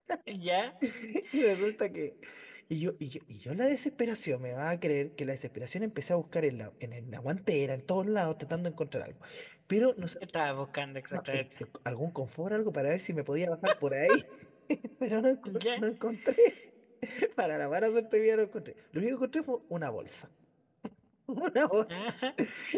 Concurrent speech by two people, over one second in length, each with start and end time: none

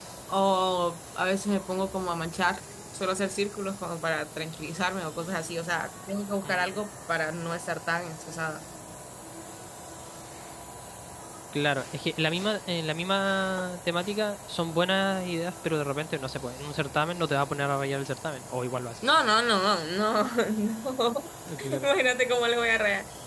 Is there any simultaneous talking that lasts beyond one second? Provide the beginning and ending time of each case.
none

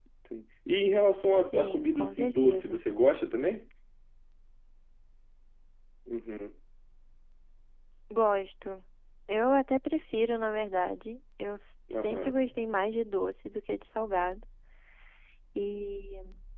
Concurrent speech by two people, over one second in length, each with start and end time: 1.5-2.8

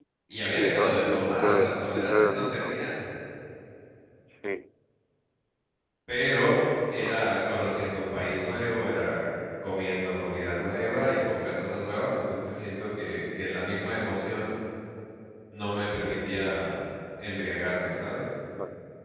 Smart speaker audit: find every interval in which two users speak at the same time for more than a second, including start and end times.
0.5-2.7

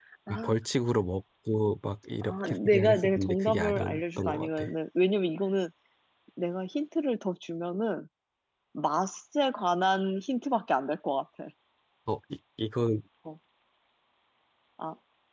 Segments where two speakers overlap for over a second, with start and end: 2.2-4.7

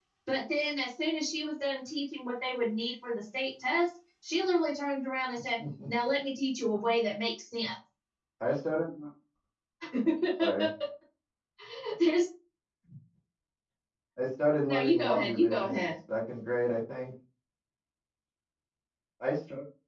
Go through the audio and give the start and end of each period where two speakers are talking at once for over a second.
14.7-15.9

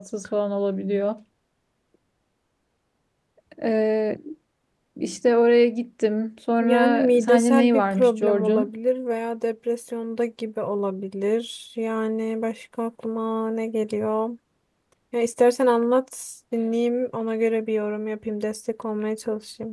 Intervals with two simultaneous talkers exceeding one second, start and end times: 6.6-8.7

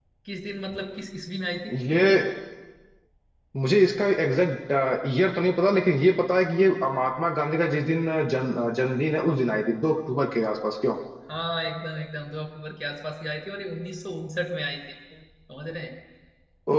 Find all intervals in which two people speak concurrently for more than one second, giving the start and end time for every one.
none

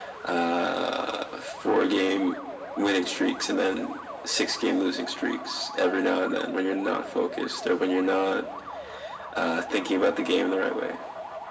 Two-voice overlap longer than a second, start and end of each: none

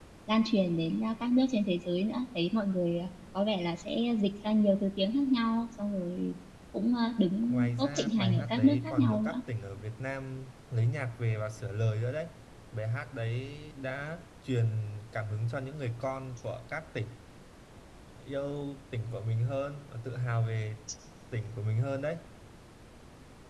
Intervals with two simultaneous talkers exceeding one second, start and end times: 7.5-9.4

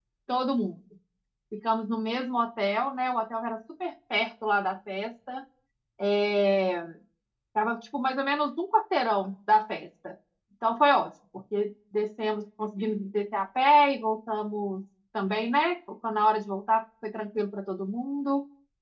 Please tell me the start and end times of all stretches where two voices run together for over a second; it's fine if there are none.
none

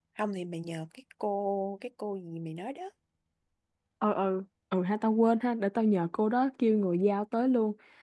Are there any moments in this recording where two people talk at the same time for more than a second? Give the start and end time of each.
none

